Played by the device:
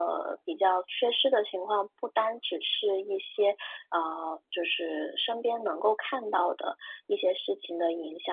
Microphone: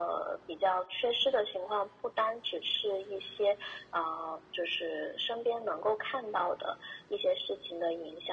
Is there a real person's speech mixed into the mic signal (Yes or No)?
No